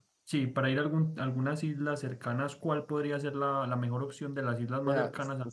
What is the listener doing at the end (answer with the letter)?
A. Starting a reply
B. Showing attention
A